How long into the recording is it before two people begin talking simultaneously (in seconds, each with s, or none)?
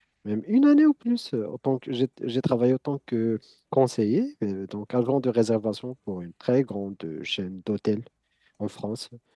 none